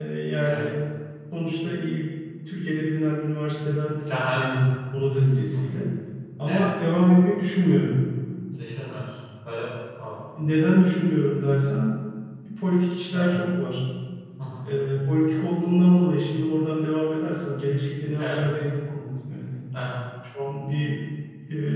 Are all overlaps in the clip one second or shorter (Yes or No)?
Yes